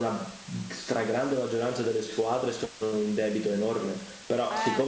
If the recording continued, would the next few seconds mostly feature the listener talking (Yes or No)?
No